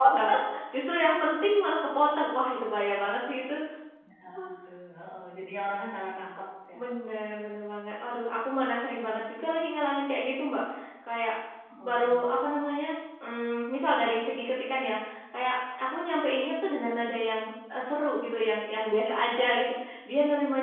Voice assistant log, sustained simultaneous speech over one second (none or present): none